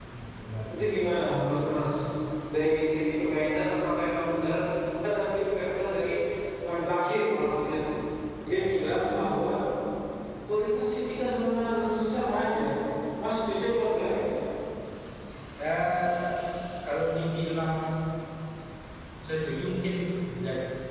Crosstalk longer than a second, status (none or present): none